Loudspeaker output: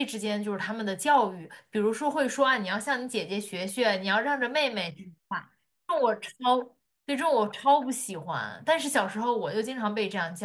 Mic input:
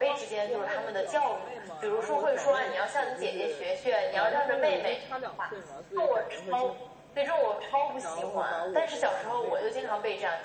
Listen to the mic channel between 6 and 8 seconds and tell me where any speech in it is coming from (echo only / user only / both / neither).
both